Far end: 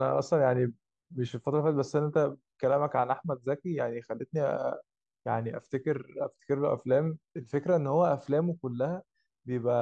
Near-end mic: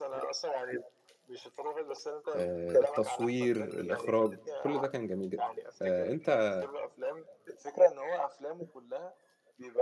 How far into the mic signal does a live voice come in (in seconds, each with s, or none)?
2.4 s